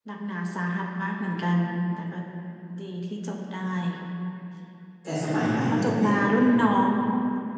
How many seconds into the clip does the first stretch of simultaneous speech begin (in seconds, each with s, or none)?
5.3 s